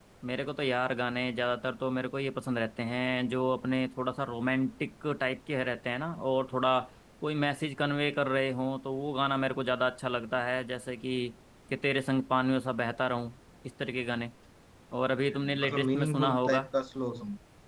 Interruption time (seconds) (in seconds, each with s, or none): 15.3 s